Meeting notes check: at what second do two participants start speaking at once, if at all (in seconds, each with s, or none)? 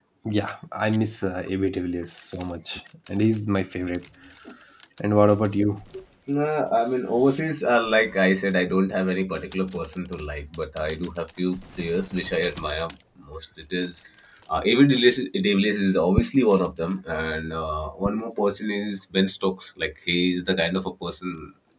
none